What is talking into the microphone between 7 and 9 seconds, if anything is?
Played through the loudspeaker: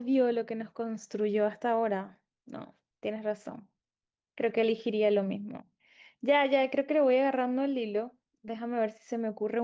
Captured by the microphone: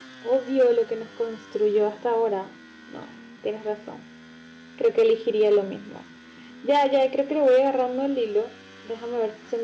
echo only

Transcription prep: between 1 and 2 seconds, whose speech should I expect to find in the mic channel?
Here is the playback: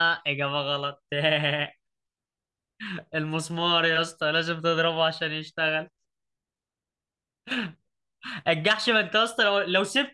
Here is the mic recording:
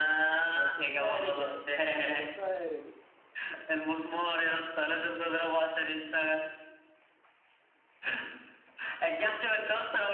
both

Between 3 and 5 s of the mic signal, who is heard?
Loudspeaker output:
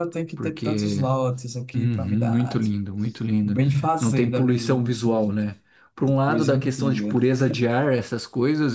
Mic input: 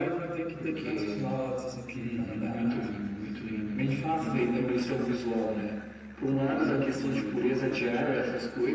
echo only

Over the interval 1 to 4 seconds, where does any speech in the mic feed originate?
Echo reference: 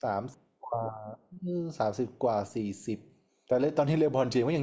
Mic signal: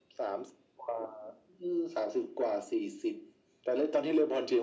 echo only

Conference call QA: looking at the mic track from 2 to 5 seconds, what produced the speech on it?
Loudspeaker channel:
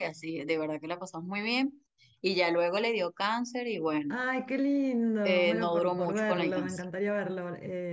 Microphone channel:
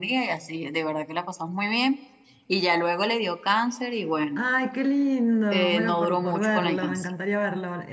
echo only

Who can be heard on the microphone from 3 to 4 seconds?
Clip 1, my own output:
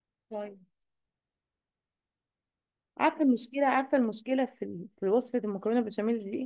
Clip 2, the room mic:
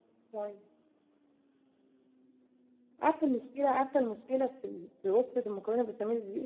echo only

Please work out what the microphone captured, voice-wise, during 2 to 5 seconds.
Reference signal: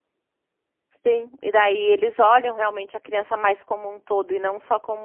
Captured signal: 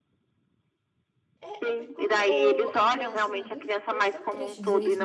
both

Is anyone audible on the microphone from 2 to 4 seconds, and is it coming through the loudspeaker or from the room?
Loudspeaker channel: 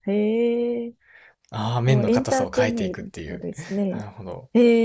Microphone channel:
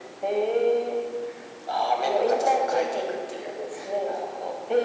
echo only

